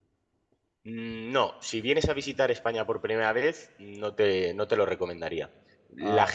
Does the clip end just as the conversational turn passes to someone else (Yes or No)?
No